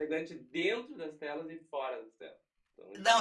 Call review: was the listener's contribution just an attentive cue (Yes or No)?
No